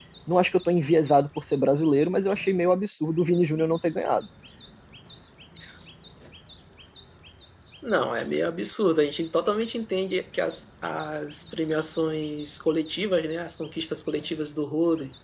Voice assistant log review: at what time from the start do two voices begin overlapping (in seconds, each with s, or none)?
none